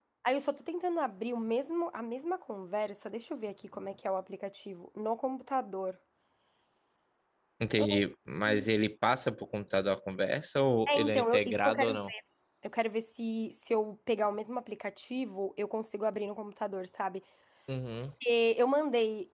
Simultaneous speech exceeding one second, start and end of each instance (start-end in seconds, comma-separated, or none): 10.9-12.1